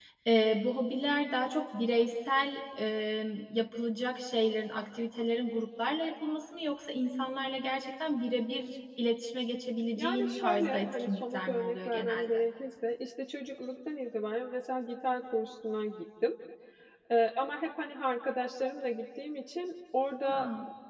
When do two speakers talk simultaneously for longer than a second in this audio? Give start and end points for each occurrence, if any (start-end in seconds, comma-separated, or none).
10.0-12.3